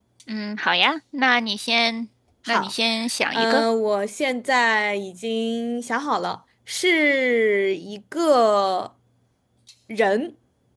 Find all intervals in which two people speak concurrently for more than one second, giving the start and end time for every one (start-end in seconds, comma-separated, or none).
none